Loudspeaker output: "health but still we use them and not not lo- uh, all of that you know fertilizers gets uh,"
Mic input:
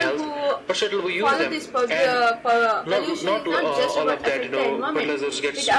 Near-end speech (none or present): present